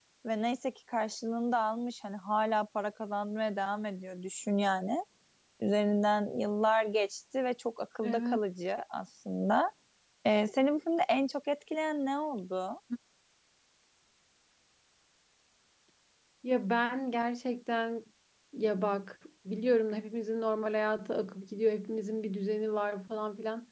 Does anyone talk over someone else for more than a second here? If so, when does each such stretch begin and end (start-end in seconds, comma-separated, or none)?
none